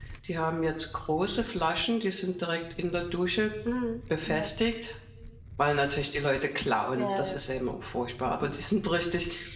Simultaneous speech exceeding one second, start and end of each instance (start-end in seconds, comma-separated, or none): none